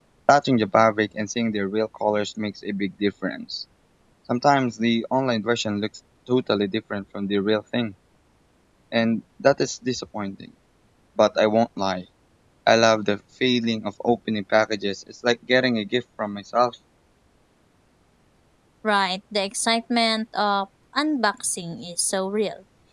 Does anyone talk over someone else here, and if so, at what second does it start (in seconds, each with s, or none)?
none